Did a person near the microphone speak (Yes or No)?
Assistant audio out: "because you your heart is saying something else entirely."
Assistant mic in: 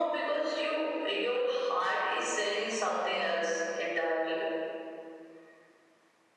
No